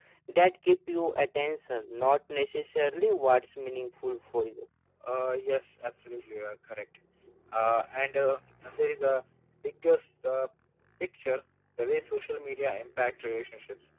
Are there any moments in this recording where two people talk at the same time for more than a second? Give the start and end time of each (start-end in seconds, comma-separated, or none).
none